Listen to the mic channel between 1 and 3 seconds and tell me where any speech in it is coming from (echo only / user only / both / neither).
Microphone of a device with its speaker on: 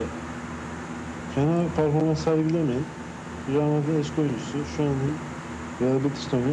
echo only